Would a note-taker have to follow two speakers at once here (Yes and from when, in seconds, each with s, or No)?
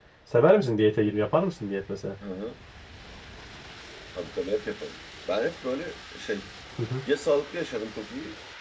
No